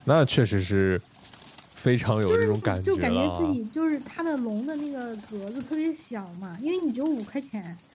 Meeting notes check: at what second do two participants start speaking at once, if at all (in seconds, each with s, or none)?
2.3 s